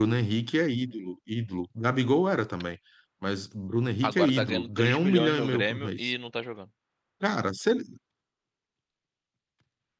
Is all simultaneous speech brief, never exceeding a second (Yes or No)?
No